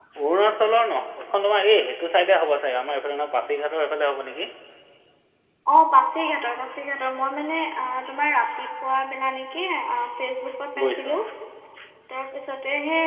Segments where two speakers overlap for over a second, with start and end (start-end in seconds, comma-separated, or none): none